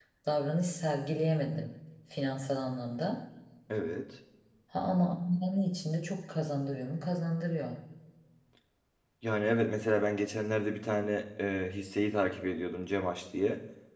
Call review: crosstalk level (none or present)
none